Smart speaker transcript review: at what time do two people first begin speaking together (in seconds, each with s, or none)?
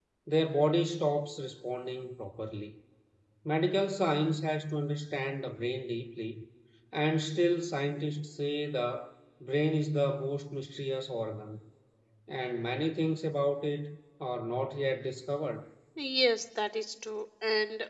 none